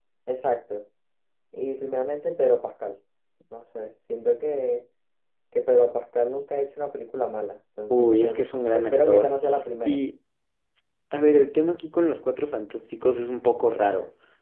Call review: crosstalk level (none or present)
present